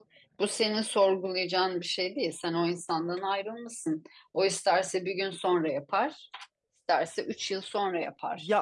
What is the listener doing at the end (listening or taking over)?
taking over